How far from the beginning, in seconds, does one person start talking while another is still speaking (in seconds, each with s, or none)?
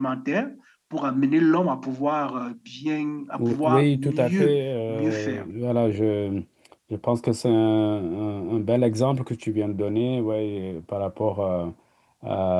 3.4 s